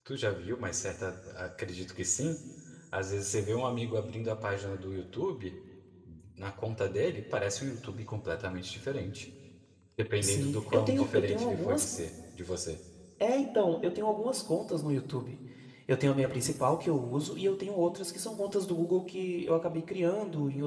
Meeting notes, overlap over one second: present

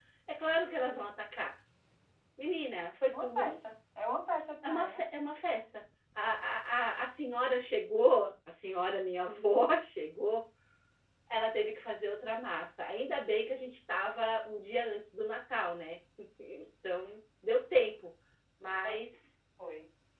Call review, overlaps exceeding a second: none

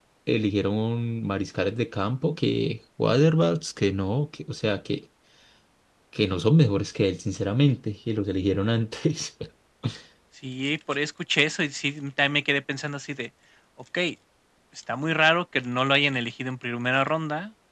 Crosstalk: none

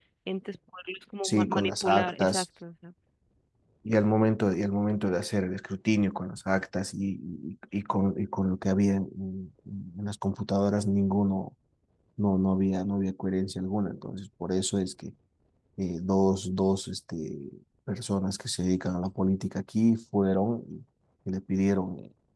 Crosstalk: present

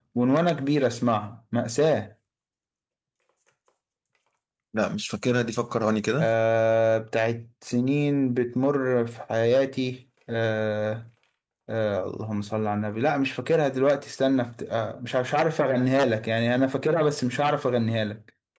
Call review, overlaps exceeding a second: none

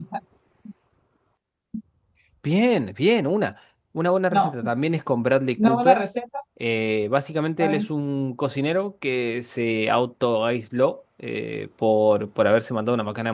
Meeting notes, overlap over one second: none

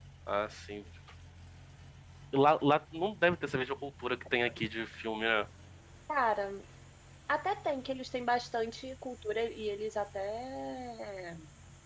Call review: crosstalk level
none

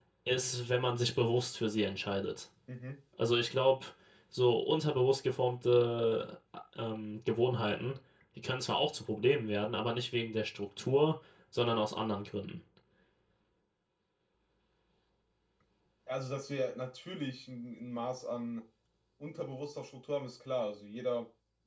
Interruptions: none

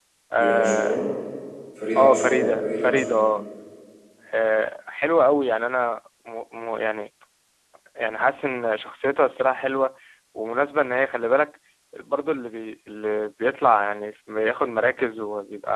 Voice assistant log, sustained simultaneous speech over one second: present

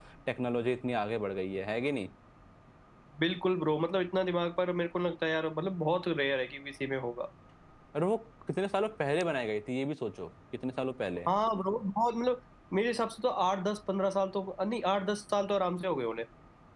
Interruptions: none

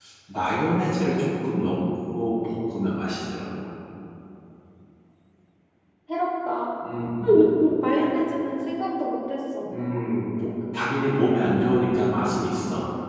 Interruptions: none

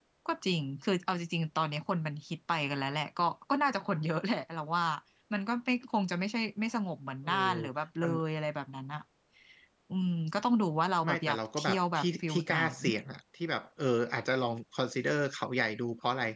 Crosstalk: present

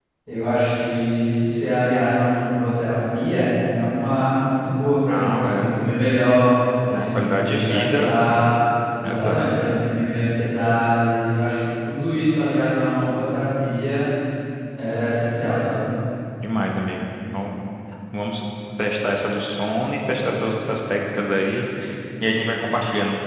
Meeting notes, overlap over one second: present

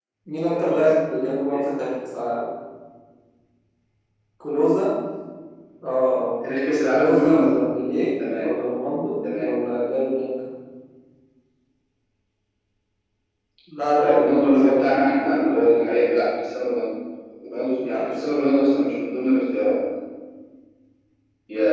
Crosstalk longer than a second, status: present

